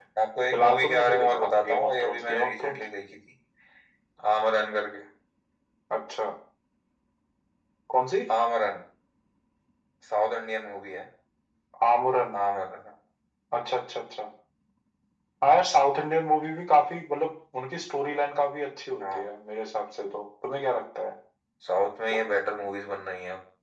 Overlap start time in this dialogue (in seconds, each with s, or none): 0.5 s